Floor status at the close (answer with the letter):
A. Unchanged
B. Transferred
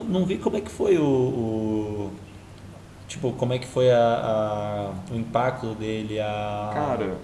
A